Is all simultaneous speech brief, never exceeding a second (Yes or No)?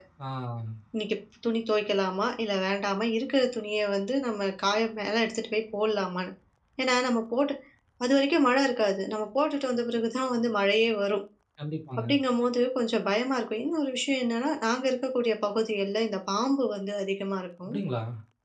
Yes